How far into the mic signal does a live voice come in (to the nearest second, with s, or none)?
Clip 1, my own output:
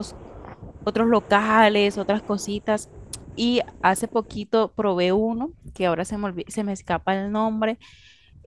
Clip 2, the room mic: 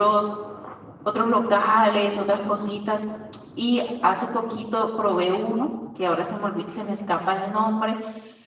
none